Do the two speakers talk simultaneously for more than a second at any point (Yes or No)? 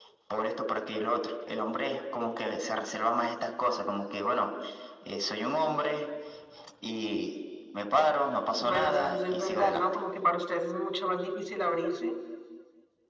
Yes